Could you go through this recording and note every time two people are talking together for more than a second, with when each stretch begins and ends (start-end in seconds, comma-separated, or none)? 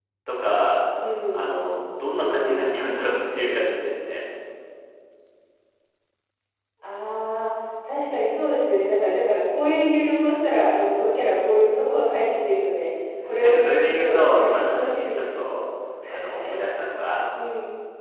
13.4-15.4